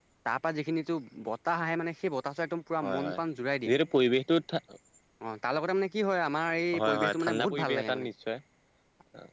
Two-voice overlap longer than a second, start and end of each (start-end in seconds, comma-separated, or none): 6.8-8.0